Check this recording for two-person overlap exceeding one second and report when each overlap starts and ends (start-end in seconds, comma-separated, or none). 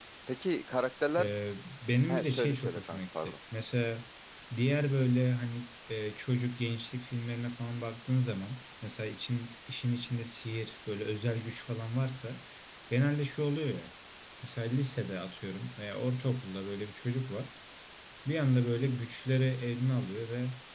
2.1-3.3